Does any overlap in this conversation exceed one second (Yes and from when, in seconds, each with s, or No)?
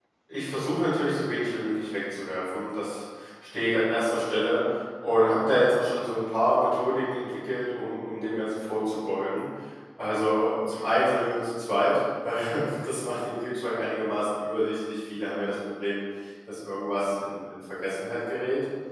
No